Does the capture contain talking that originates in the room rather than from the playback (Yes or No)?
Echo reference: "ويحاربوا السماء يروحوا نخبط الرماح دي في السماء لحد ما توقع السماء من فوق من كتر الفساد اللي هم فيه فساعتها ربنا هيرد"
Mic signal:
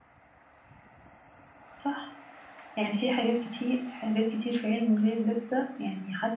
Yes